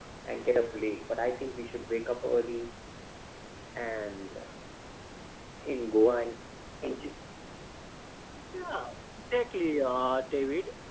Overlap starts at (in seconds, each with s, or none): none